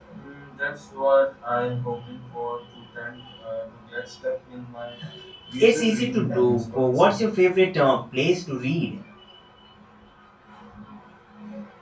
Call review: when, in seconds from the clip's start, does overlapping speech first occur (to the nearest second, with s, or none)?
6 s